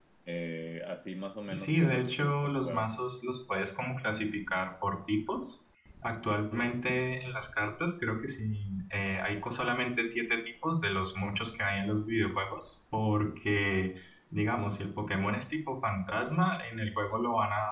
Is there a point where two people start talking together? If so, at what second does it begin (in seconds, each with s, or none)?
1.5 s